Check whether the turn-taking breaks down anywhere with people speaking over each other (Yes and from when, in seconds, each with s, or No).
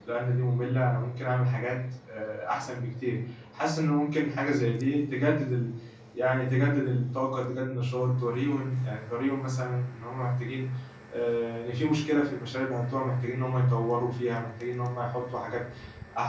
No